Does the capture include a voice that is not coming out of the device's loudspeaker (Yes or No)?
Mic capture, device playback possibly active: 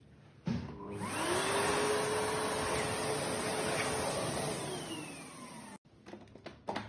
No